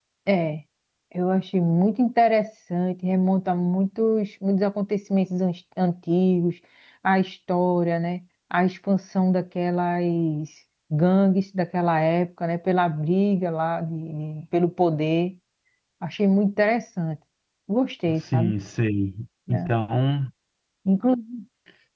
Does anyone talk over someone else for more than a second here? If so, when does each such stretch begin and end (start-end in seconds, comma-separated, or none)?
none